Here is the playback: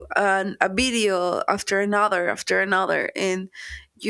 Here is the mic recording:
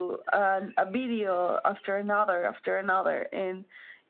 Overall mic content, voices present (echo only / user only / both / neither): echo only